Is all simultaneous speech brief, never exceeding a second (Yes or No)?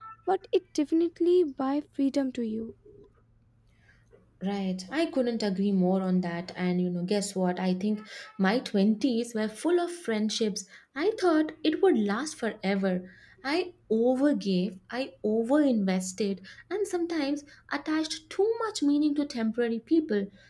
Yes